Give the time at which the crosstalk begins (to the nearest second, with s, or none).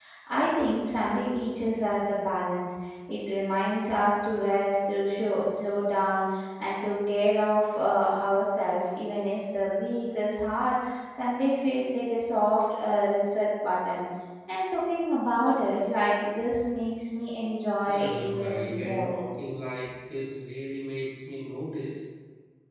18 s